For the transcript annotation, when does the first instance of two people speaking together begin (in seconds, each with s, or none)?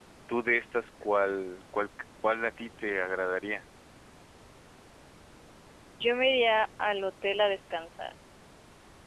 none